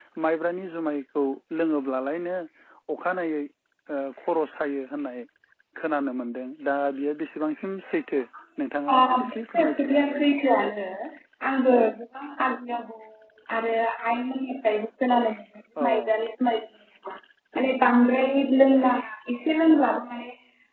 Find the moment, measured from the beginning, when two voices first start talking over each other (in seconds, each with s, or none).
8.9 s